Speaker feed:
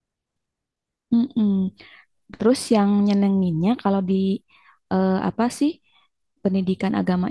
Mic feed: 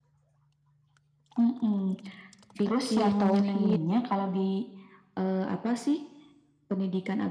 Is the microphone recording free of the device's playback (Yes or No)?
No